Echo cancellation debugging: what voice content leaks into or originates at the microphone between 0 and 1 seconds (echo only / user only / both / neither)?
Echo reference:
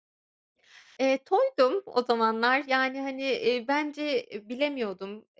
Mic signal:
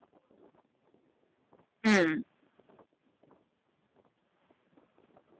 neither